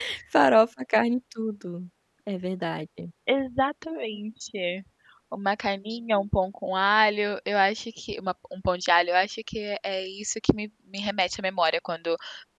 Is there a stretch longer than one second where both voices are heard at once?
No

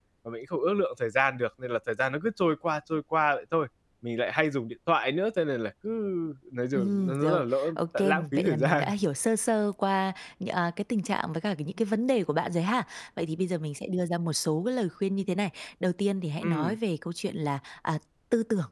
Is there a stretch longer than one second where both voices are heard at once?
Yes, from 6.7 s

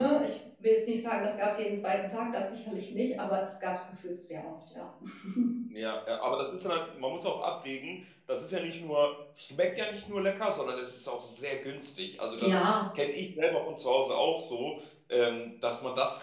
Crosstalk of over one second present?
No

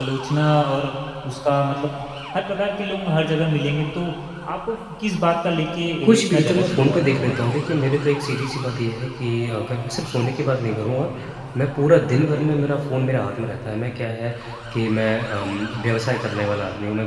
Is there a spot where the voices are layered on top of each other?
Yes, from 6.0 s

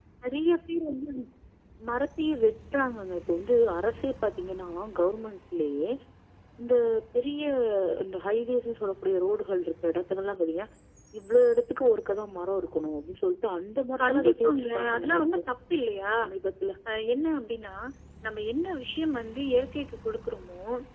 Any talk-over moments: Yes, from 14.0 s

